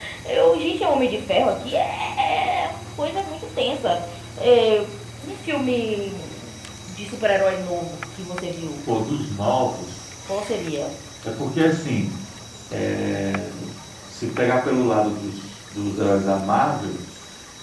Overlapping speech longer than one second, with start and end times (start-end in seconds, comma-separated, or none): none